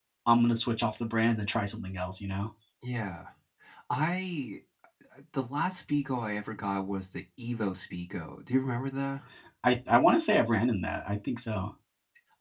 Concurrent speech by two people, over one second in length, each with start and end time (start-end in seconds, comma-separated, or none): none